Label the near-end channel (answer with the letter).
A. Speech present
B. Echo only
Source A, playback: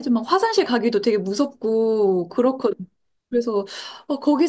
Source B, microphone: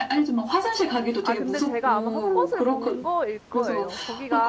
A